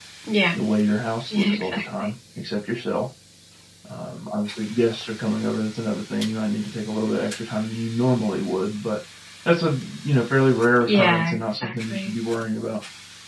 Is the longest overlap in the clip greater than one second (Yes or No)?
Yes